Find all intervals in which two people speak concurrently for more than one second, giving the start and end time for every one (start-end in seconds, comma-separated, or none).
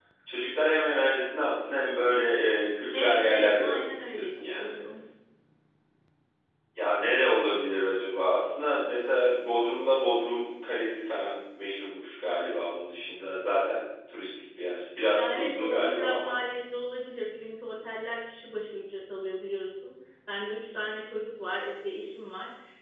2.9-4.7, 15.1-16.4